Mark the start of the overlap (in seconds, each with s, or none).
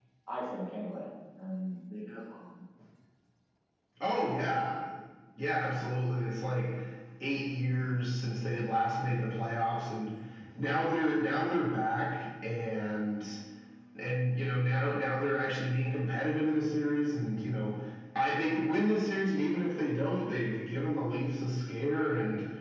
none